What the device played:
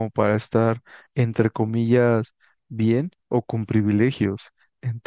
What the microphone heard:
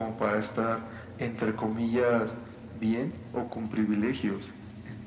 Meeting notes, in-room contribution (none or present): none